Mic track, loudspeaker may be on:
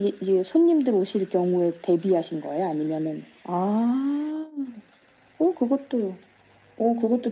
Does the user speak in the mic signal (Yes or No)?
No